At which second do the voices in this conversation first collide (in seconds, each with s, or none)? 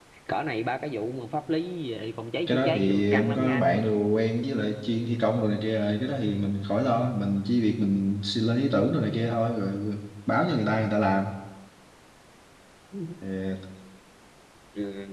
2.5 s